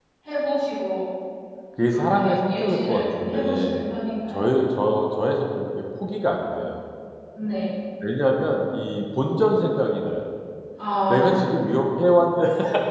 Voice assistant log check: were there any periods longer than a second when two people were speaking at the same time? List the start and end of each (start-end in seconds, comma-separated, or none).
1.9-3.8